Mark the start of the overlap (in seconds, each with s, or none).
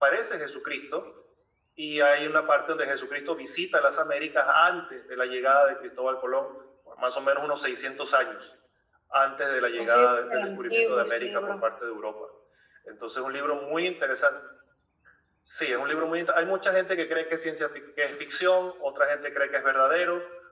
9.8 s